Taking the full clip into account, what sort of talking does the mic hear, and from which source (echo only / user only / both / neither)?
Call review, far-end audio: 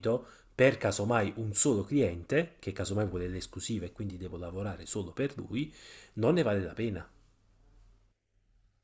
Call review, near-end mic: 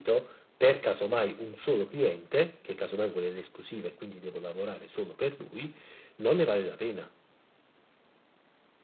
echo only